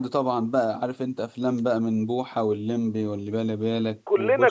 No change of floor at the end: No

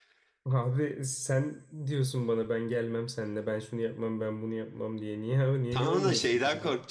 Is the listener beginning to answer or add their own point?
Yes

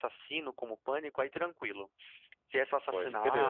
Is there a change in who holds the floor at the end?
No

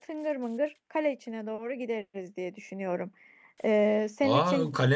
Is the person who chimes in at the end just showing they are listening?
No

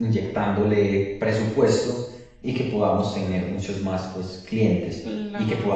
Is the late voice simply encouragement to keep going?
Yes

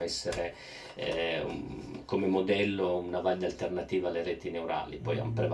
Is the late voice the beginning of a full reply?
Yes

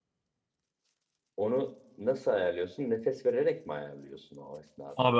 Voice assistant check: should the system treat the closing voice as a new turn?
Yes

